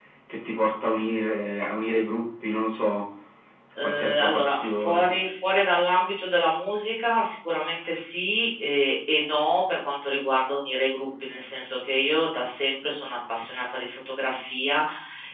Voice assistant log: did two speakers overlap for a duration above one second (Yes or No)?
Yes